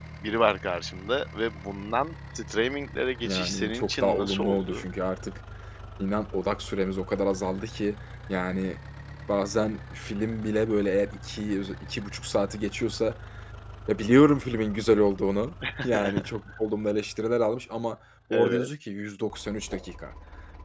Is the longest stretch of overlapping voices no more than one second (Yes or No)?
No